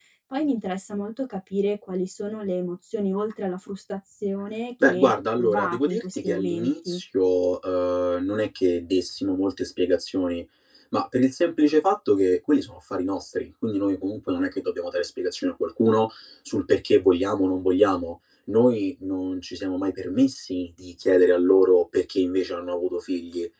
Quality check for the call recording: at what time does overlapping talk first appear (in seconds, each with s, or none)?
4.8 s